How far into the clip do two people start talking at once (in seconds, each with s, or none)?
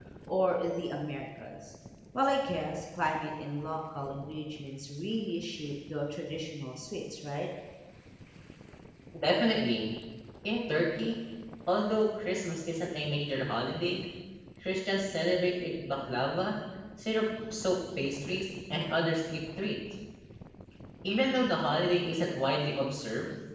none